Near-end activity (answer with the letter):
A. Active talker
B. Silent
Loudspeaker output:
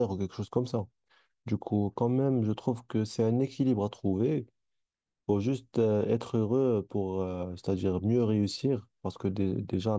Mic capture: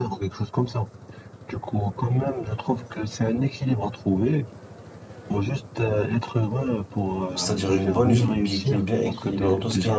A